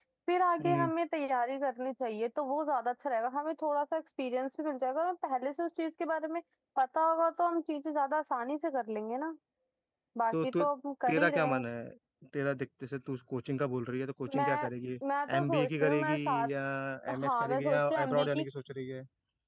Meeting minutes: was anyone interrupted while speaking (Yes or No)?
Yes